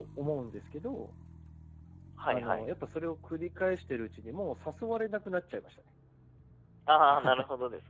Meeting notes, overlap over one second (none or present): none